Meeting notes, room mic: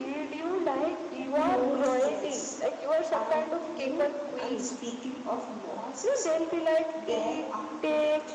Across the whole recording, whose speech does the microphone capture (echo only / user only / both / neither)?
both